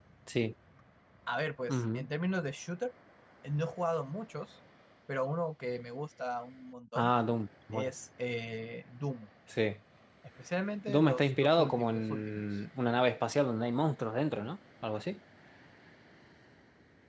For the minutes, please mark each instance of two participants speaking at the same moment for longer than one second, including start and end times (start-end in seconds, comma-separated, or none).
10.9-12.4